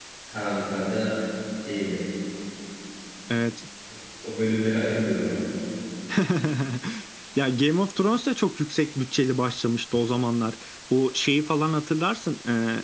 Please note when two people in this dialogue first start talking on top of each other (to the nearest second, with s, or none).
none